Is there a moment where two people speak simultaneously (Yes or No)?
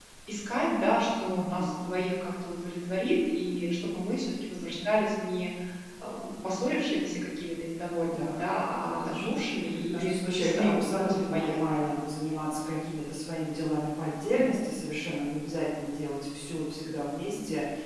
Yes